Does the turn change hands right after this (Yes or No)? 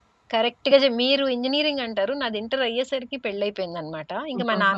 No